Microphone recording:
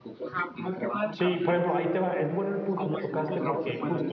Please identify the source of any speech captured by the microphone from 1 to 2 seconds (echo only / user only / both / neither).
both